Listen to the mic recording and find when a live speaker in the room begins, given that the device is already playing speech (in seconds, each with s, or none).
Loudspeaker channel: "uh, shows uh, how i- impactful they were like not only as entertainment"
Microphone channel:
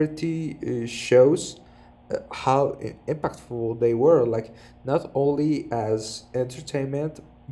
none